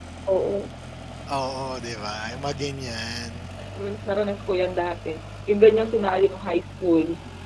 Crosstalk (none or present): none